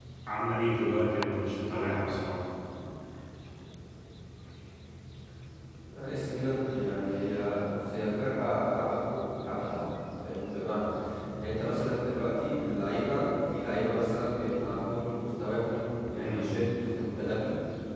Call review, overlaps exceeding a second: none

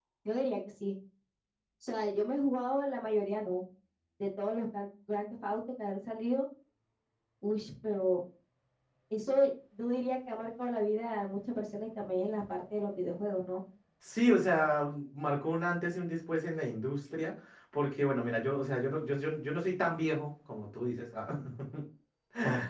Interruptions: none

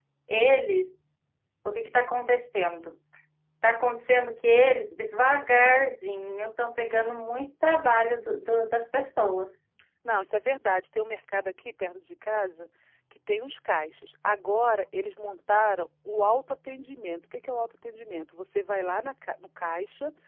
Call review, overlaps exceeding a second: none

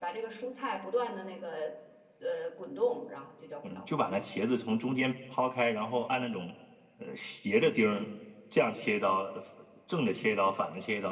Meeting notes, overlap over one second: none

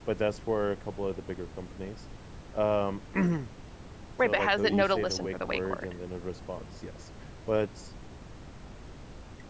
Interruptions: present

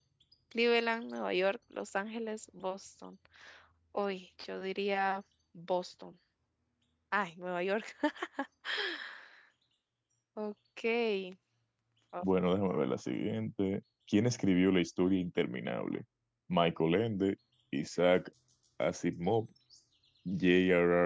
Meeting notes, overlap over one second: none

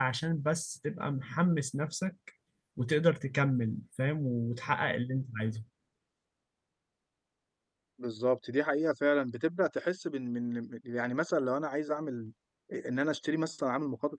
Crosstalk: none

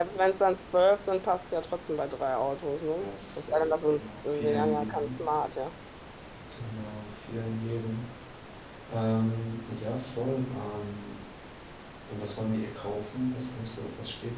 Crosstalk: present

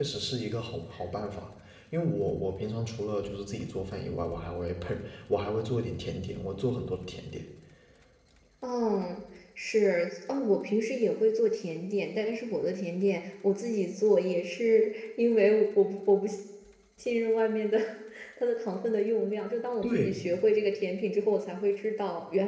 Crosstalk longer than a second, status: none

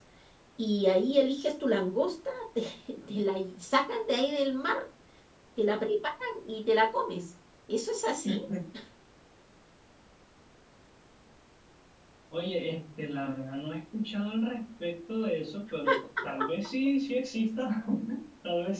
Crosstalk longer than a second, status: none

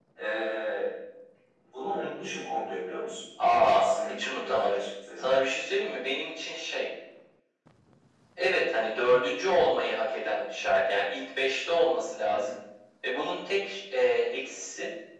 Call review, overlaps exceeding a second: present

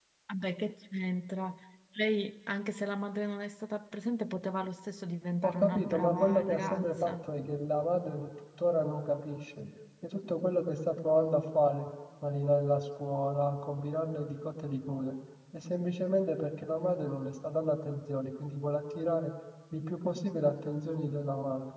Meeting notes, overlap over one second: present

